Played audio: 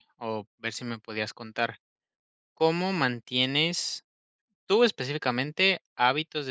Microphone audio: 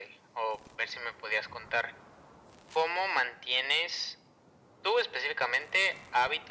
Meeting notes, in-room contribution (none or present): none